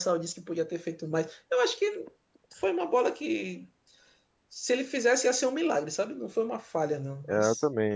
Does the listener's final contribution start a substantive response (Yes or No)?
Yes